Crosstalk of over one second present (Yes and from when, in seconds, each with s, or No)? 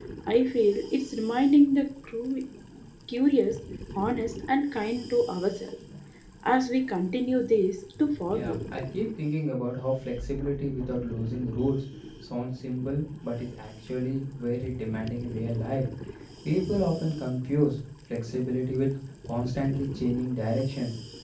No